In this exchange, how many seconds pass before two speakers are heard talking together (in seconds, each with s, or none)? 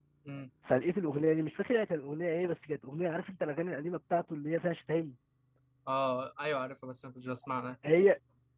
none